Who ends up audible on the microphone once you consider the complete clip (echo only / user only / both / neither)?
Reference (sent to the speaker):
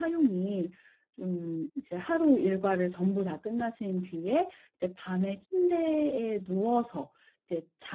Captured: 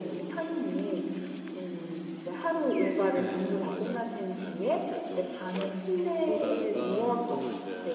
both